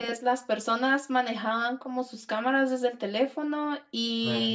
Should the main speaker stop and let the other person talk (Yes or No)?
No